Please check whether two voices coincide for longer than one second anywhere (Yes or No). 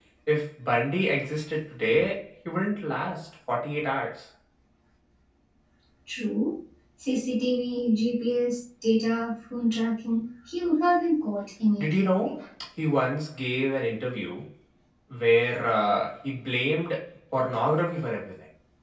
No